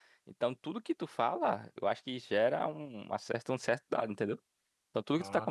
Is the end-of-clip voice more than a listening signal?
No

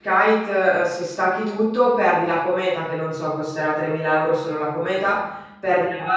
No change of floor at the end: Yes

